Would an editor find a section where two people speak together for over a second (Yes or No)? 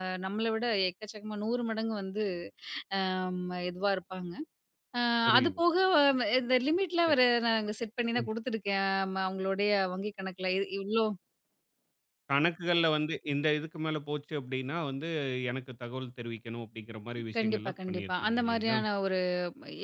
Yes